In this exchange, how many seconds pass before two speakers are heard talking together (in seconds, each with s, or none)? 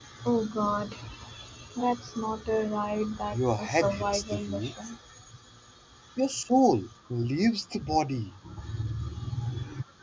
3.3 s